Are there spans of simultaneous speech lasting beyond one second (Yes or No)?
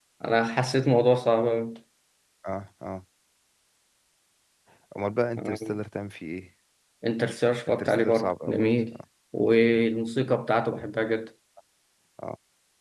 Yes